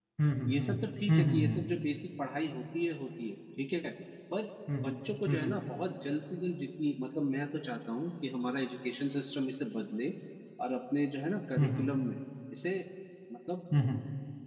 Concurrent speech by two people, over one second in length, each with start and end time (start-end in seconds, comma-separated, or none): none